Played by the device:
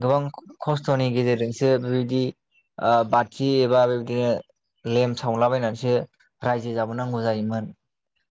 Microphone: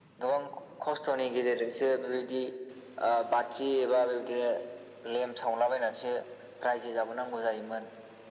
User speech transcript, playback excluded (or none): none